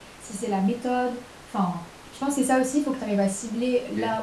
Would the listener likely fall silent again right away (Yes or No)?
Yes